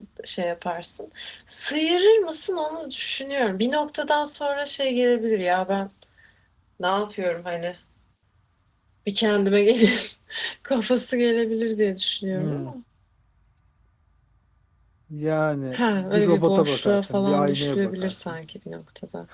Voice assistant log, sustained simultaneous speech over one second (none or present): present